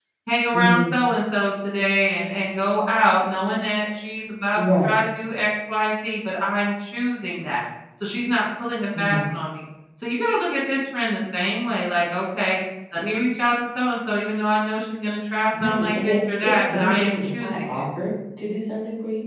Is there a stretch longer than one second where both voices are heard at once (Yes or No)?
Yes